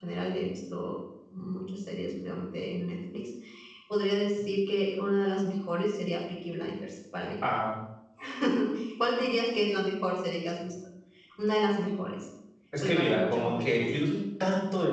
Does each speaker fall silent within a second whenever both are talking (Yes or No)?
No